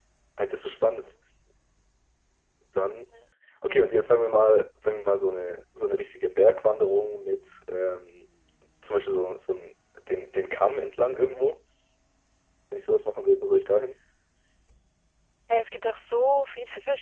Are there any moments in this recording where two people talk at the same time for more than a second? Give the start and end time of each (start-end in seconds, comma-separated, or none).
none